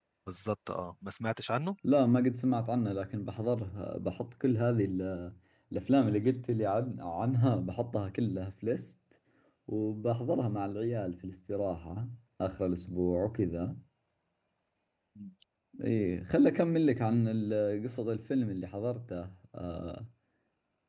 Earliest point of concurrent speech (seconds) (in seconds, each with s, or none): none